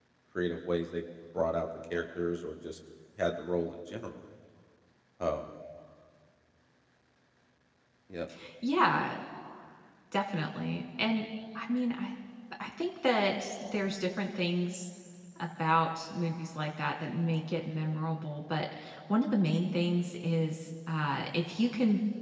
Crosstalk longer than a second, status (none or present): none